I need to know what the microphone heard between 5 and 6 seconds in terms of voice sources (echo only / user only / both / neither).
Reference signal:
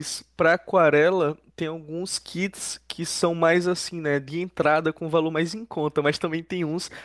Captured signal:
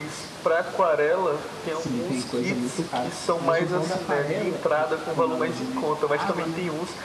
both